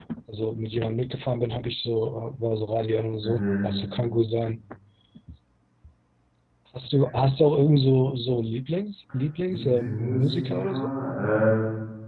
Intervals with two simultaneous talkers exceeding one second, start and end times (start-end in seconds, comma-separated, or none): 9.5-10.9